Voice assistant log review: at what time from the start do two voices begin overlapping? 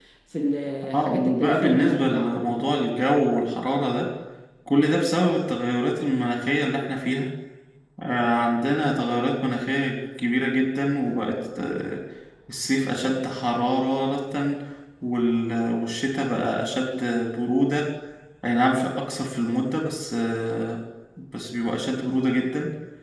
0.9 s

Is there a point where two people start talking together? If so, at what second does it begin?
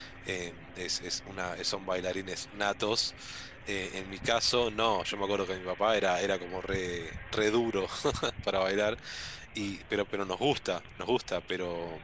none

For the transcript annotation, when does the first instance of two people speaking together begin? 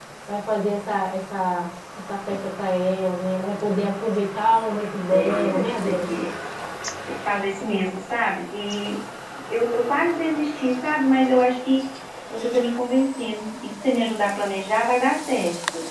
4.7 s

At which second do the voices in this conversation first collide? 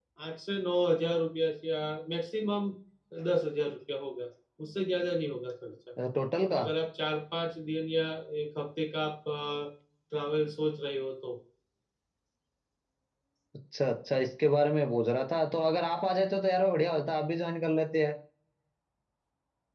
none

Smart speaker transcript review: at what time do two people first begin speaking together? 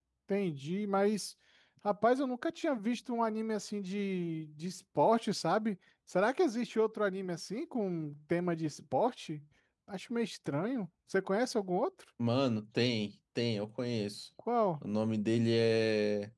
none

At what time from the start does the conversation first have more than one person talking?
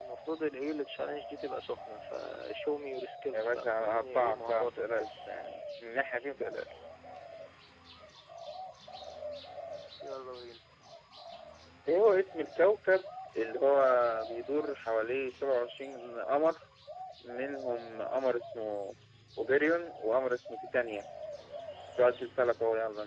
3.3 s

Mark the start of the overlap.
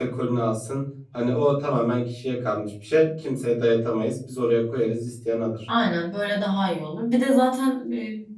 none

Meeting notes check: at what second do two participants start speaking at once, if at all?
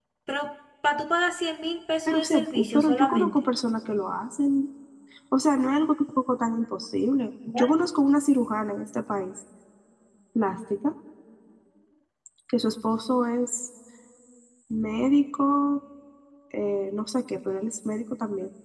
2.1 s

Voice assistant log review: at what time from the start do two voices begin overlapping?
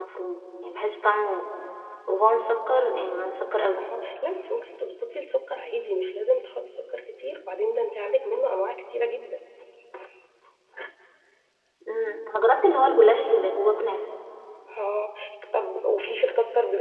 none

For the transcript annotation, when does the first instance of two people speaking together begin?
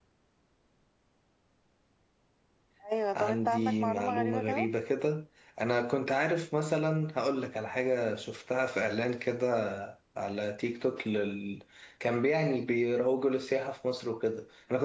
3.2 s

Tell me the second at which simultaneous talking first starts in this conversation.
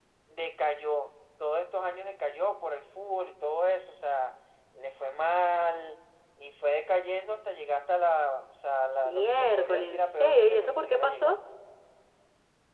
9.0 s

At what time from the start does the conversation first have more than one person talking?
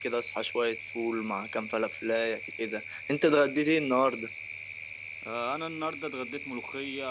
none

